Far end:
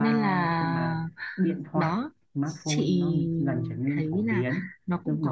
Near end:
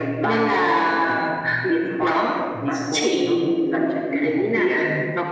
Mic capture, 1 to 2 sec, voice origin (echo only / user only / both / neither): both